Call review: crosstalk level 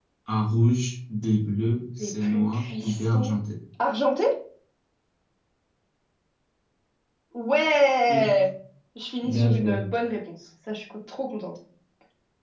present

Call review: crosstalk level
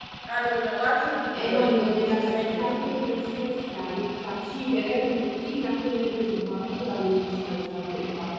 present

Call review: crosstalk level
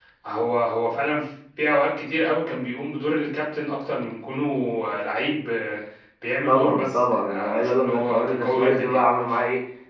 present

